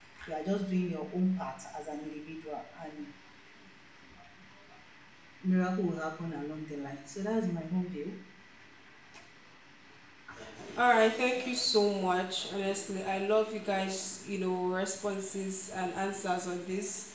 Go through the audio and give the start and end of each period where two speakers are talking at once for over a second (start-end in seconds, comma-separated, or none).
none